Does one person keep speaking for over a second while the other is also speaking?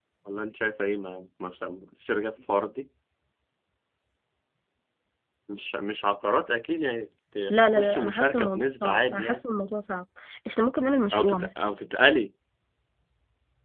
Yes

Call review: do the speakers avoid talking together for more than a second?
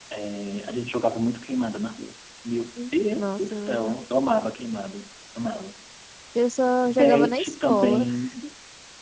No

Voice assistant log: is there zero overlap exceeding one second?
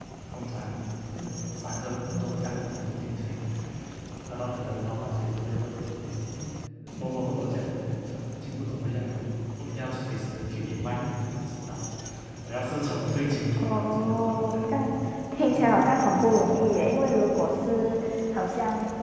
No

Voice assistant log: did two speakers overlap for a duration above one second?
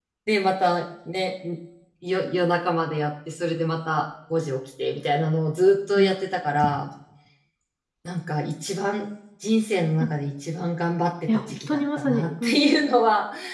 Yes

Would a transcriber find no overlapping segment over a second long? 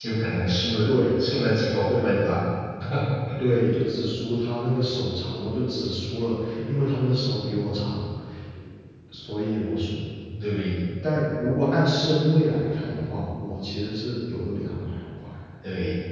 Yes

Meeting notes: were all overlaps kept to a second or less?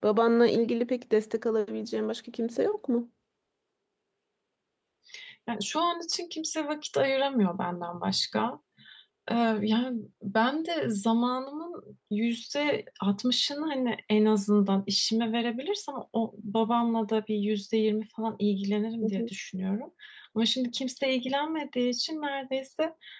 Yes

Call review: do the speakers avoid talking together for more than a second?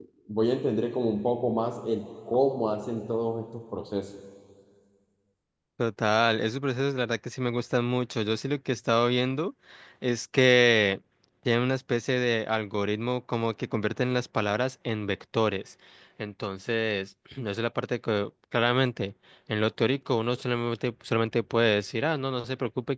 Yes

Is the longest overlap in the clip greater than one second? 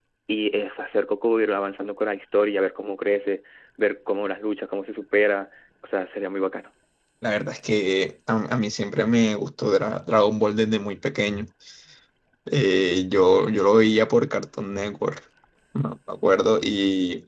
No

